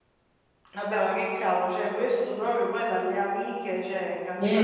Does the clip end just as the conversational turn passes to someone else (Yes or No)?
Yes